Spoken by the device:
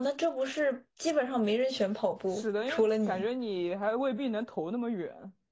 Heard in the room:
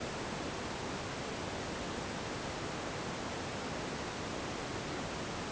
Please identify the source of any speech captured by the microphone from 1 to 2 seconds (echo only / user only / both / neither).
neither